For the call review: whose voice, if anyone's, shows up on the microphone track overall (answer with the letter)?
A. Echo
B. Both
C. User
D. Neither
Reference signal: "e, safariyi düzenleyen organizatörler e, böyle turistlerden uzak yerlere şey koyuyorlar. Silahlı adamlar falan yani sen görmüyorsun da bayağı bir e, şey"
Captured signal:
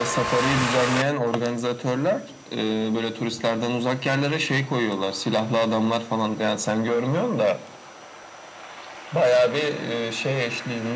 A